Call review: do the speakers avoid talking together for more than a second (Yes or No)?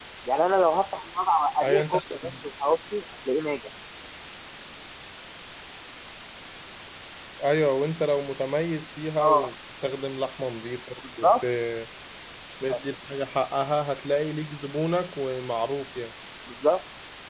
Yes